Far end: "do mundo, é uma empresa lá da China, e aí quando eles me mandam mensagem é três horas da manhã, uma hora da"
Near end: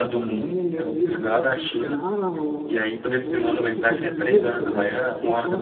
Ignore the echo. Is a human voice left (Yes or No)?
Yes